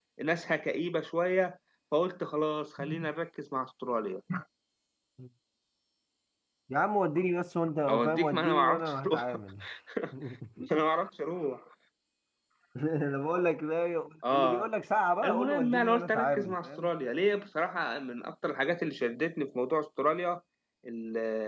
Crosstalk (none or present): present